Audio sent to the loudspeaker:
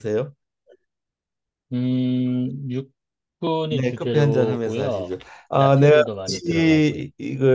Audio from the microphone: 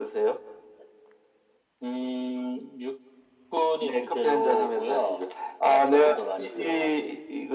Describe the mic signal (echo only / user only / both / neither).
echo only